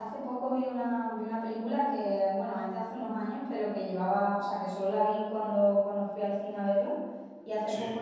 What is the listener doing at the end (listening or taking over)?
listening